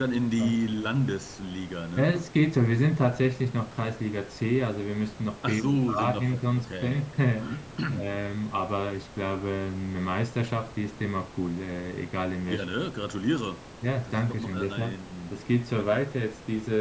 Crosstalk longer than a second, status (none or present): present